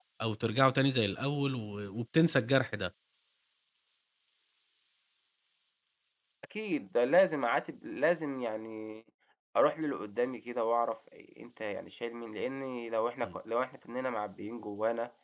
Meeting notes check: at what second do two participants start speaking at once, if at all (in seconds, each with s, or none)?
none